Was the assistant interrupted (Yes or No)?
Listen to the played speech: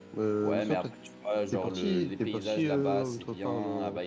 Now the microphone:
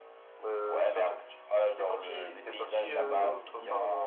Yes